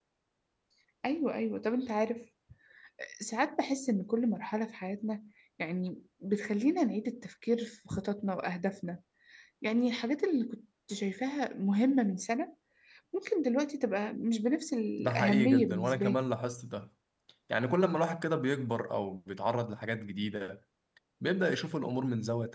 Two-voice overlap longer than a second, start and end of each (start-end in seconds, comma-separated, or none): 15.0-16.2